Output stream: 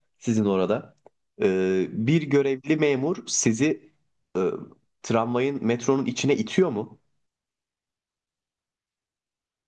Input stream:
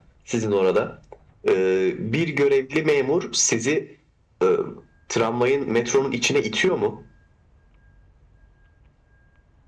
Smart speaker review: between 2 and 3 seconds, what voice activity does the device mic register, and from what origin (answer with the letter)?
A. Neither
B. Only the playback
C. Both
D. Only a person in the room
B